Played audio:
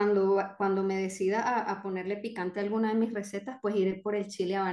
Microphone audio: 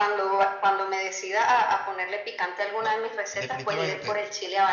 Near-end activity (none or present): present